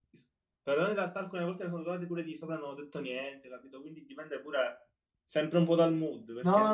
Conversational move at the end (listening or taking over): taking over